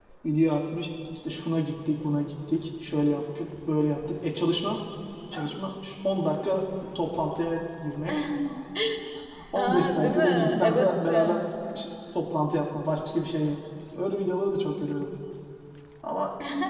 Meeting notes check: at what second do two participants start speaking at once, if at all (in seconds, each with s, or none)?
9.6 s